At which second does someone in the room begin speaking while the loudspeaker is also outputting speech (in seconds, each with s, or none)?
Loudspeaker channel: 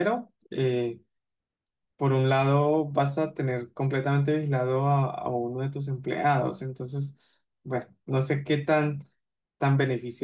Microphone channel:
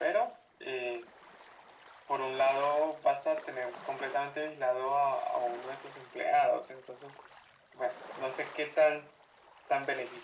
none